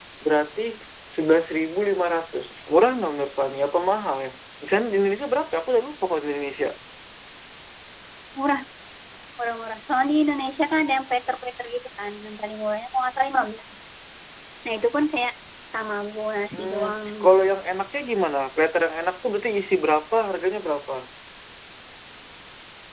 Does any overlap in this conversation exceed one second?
No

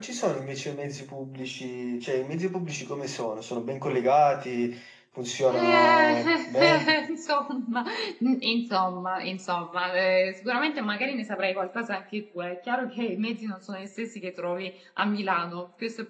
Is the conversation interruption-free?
No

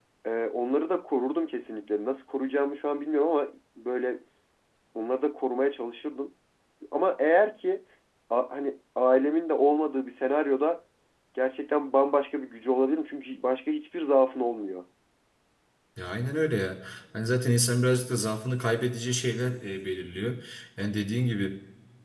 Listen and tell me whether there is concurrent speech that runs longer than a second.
No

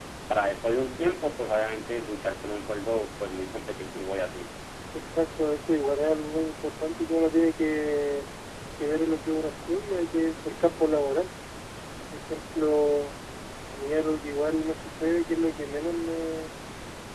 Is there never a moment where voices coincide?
Yes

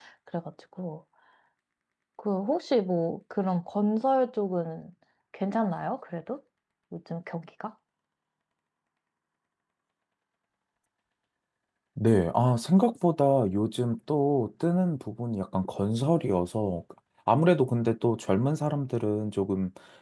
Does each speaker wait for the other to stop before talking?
Yes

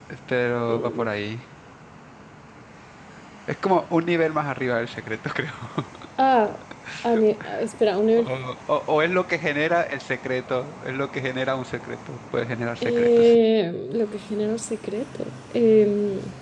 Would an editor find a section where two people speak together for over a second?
No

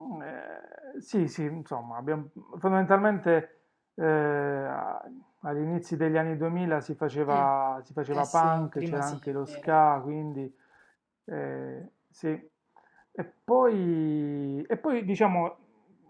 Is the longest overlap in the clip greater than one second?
Yes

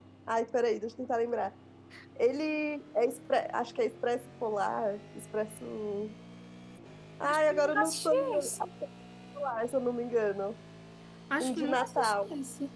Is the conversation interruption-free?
No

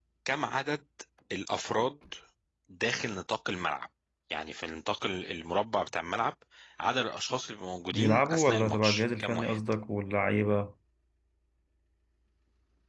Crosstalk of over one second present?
Yes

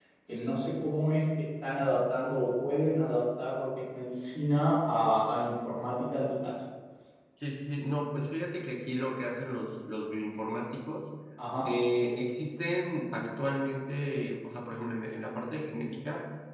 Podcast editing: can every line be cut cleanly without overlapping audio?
Yes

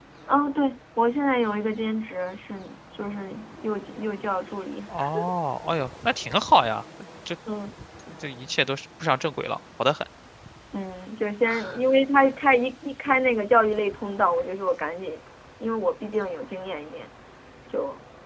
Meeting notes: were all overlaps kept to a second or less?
Yes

